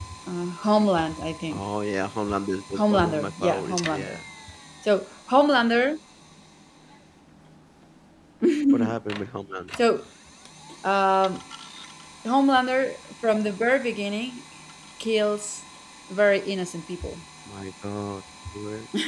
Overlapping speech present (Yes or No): Yes